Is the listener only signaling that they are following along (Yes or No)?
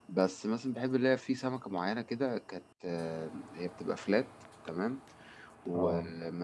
Yes